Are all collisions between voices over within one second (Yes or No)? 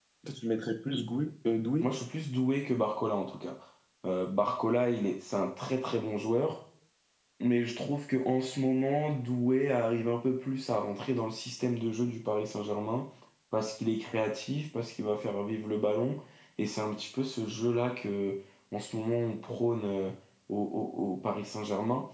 Yes